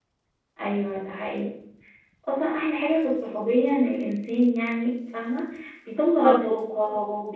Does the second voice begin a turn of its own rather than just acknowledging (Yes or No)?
No